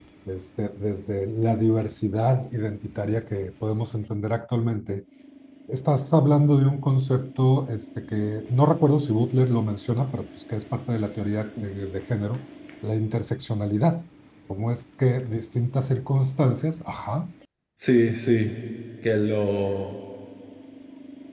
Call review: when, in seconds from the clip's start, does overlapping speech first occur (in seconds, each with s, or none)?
none